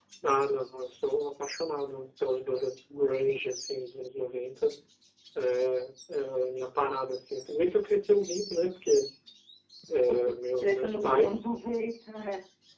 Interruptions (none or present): present